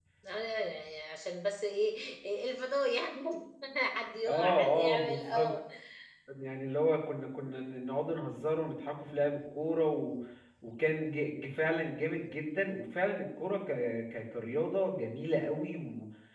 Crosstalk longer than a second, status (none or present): present